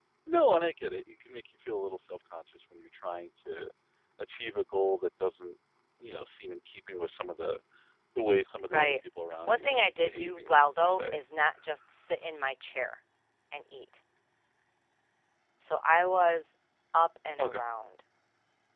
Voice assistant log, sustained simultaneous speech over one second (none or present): present